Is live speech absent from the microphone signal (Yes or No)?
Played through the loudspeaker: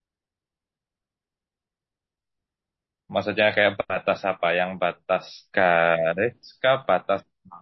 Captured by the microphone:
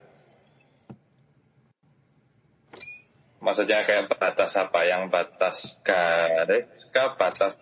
Yes